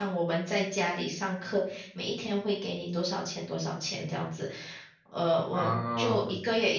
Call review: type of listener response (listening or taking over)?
listening